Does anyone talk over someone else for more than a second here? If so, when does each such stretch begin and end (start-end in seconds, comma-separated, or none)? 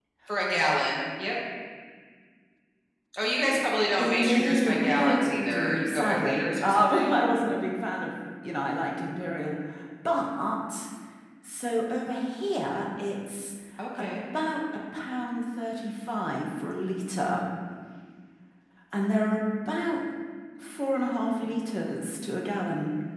4.0-7.2